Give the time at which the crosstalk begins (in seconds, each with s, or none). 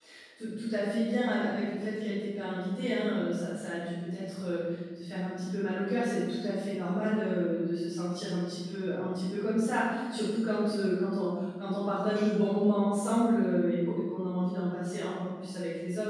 none